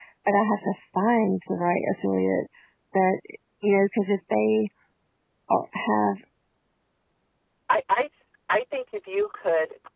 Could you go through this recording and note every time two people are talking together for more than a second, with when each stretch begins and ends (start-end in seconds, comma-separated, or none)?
none